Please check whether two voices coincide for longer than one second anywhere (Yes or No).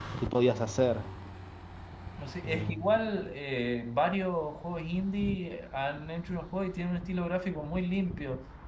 No